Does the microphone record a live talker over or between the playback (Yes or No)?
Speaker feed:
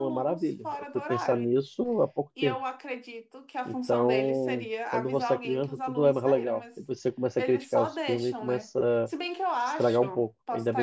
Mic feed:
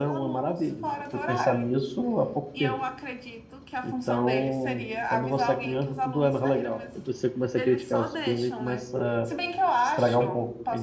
No